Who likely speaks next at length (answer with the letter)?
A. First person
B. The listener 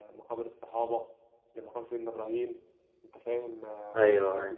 A